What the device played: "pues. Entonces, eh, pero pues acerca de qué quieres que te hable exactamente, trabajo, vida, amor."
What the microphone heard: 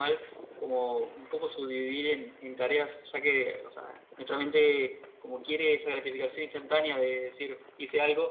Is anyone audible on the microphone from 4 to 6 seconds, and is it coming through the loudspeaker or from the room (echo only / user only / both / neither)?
user only